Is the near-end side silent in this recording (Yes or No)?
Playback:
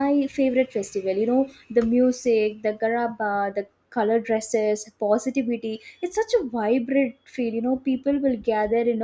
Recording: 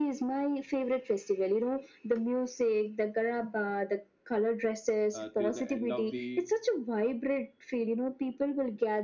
No